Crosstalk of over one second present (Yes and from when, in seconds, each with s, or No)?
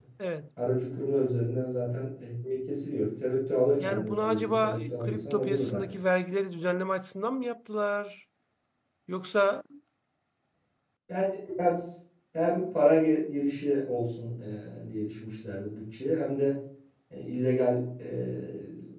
Yes, from 3.8 s